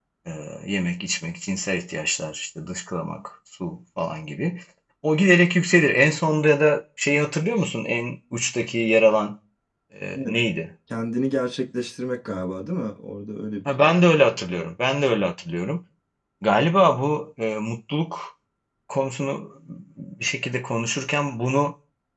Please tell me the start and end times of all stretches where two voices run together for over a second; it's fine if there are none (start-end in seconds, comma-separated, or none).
none